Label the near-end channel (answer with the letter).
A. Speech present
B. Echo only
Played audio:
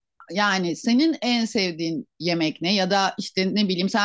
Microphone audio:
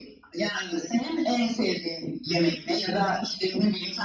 B